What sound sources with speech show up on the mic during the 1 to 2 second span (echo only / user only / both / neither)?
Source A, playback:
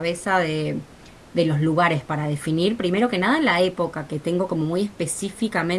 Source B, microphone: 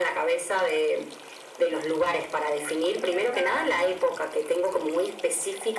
echo only